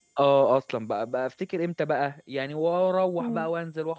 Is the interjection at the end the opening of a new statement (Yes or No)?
No